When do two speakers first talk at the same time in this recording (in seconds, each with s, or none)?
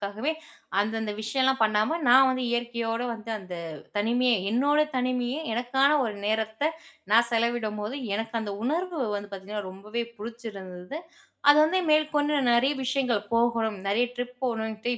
none